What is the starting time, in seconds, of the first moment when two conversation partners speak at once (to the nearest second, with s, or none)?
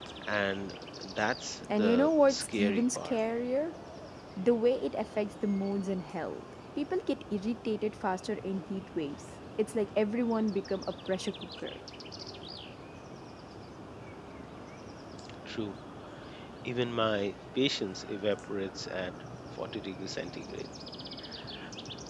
2 s